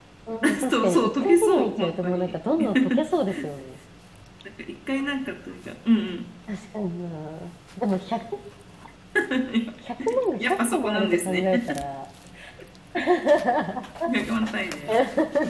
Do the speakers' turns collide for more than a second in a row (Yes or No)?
Yes